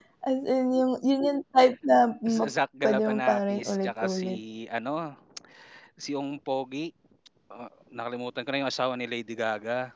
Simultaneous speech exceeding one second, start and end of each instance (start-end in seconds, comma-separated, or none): 2.3-4.4